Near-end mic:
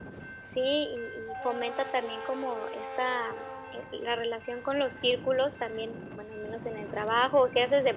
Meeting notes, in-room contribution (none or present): none